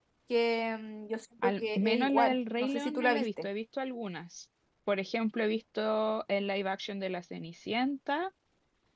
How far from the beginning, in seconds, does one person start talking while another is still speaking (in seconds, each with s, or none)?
1.4 s